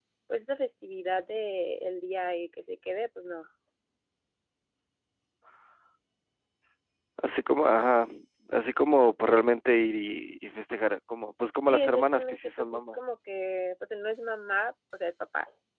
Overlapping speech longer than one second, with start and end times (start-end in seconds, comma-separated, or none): 11.7-13.0